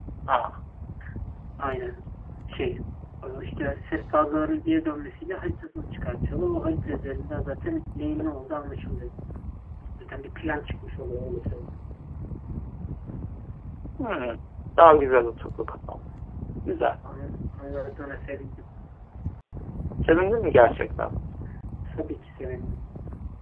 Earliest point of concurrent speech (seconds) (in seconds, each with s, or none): none